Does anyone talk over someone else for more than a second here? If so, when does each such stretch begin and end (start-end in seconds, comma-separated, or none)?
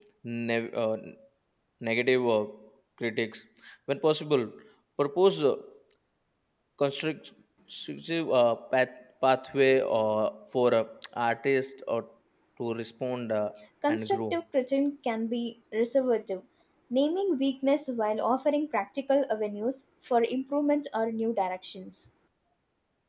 none